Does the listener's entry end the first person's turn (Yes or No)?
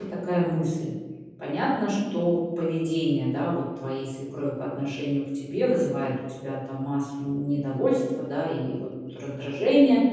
No